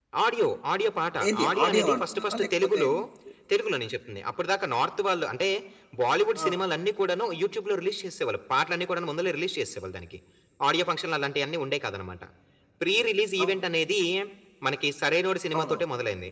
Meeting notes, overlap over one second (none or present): present